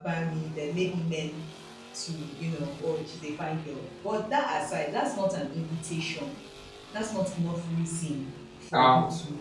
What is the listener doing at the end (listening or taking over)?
taking over